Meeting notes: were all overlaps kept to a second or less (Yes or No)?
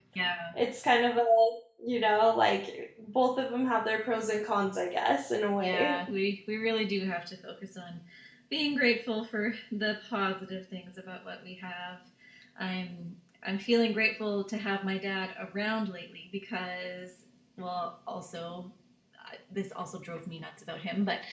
Yes